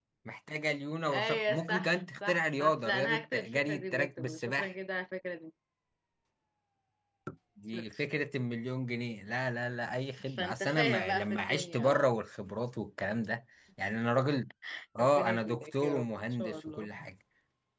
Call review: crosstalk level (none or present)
present